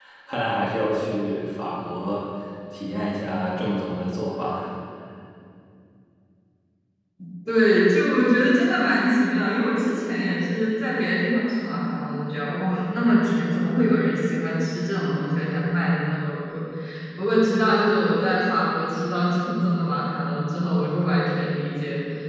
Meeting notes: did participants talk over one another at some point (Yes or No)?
No